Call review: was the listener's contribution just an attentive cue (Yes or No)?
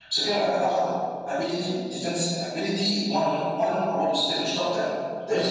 No